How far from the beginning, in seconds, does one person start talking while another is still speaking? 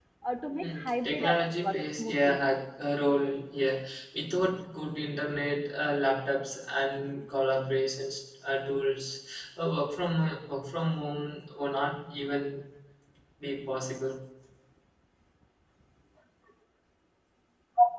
1 s

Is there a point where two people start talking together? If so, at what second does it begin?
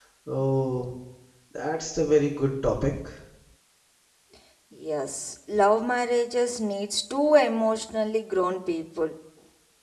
none

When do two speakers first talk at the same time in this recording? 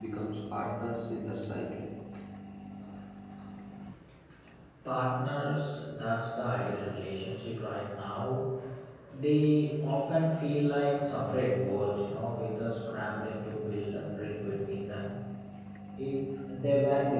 none

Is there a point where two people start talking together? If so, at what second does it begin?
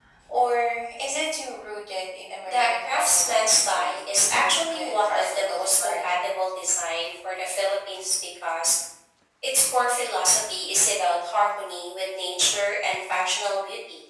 2 s

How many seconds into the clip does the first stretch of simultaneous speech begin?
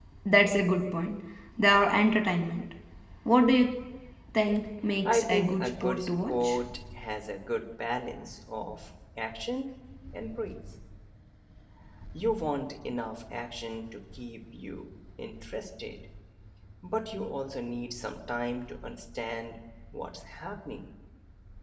5 s

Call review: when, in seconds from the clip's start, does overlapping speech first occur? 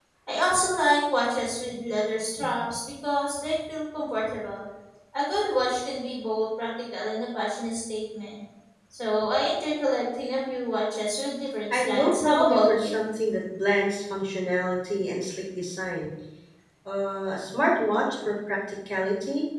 12 s

